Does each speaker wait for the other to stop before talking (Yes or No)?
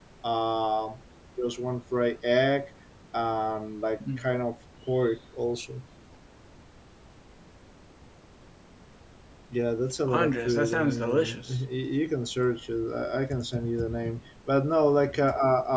No